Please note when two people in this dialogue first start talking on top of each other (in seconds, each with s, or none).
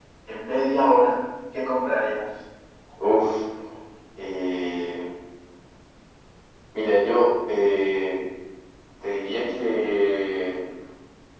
none